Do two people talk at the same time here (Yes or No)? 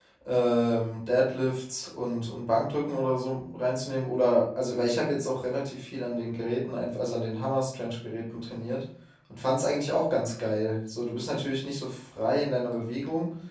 No